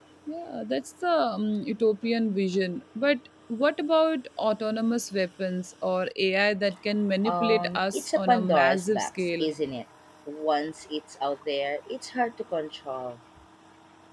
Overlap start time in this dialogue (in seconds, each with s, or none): 7.2 s